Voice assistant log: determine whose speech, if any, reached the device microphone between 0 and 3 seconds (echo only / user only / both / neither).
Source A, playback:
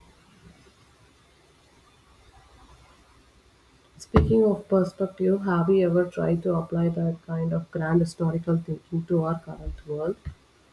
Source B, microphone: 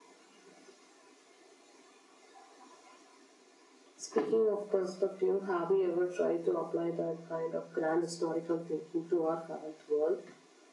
neither